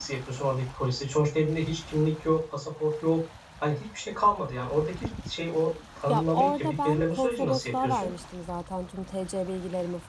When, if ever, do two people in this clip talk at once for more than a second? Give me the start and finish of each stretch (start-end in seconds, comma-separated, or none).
6.1-8.1